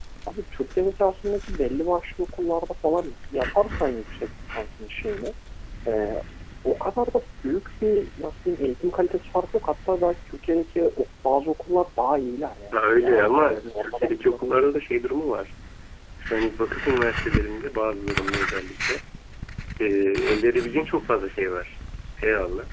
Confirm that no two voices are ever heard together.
No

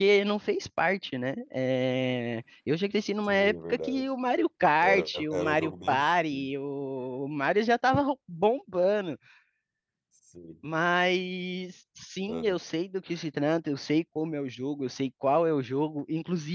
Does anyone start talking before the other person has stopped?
Yes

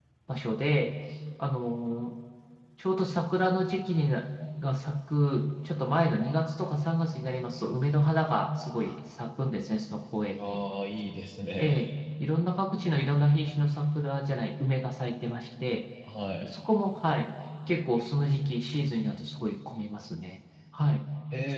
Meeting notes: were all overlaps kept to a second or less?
Yes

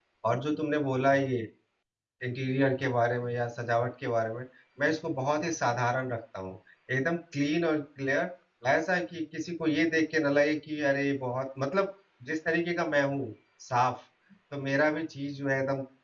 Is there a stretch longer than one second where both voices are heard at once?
No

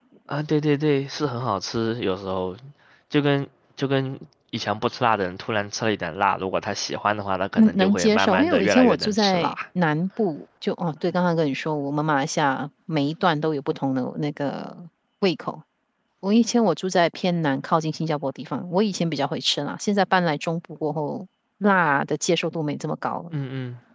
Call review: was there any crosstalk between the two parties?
Yes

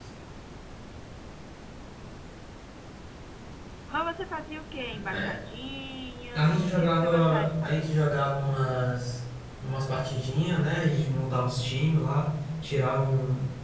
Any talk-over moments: Yes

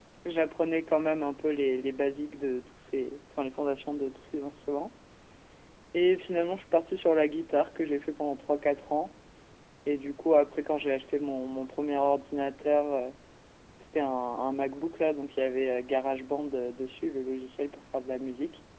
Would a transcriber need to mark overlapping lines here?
No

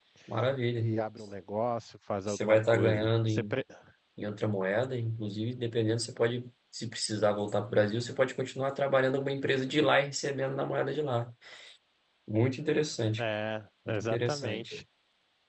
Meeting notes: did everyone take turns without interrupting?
No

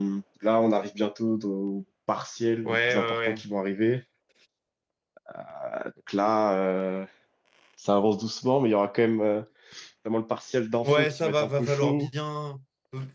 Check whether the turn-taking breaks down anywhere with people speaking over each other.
Yes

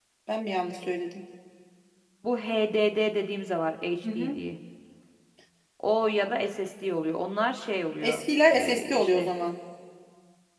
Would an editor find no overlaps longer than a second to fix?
No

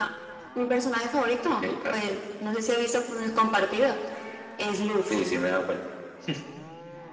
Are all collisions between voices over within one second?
Yes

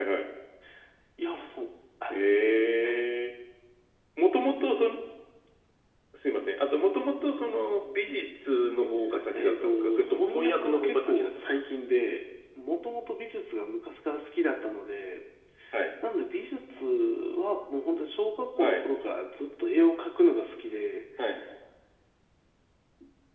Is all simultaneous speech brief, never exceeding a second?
No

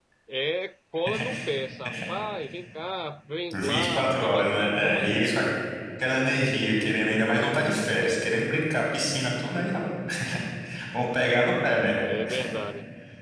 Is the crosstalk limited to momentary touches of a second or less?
No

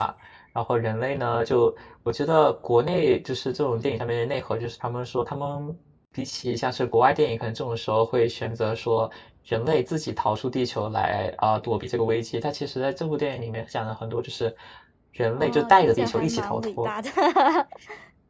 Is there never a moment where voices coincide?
No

